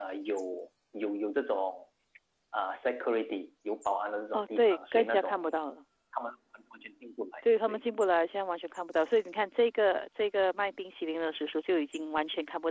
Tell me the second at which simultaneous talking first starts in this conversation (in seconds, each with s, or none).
4.3 s